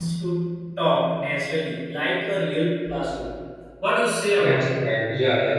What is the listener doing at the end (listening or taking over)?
taking over